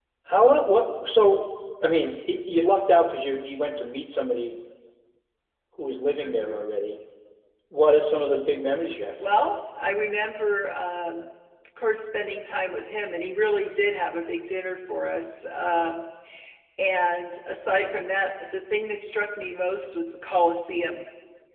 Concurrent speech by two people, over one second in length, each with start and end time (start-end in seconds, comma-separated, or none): none